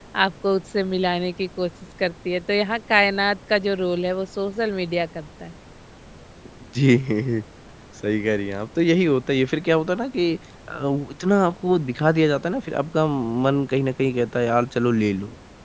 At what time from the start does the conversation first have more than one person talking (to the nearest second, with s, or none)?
none